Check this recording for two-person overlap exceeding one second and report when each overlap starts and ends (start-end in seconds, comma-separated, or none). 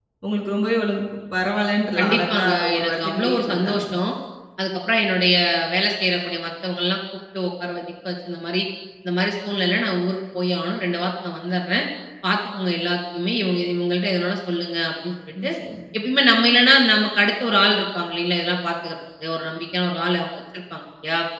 2.0-3.8